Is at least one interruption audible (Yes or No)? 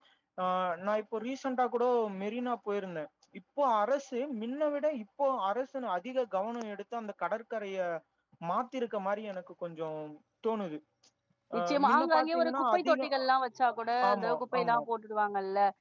Yes